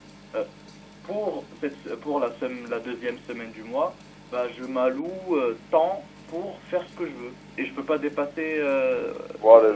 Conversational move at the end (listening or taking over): taking over